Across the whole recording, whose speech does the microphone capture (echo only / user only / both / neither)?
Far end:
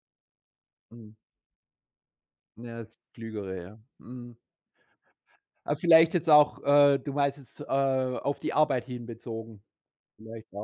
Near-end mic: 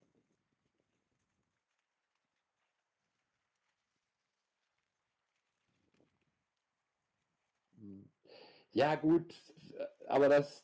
user only